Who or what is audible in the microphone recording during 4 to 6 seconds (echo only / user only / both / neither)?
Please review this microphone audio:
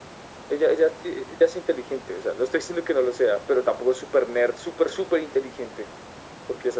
echo only